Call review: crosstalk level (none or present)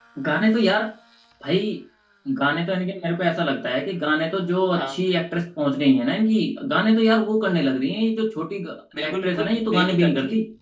present